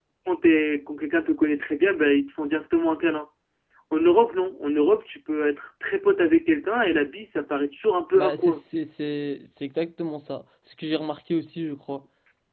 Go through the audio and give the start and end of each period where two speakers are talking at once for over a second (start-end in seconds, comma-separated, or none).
none